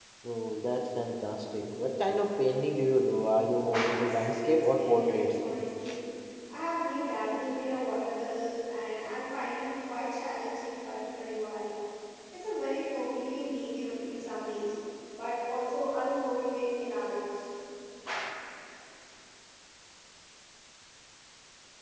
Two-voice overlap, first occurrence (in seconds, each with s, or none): 3.9 s